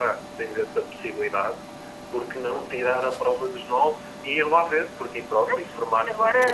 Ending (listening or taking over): taking over